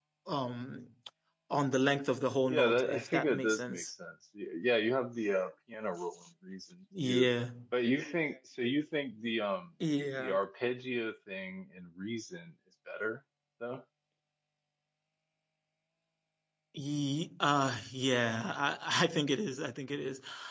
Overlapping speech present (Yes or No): Yes